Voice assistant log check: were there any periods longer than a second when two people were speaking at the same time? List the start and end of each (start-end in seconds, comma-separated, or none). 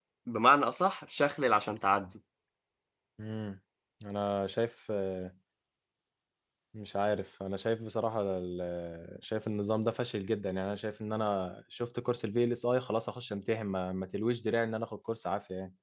none